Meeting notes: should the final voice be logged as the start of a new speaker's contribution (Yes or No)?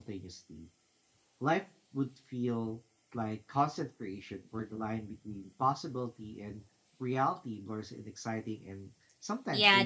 Yes